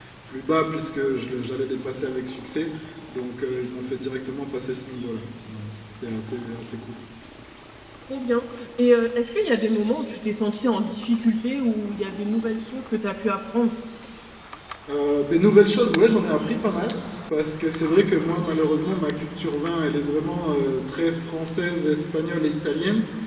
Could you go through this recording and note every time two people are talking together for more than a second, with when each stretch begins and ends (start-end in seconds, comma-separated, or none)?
none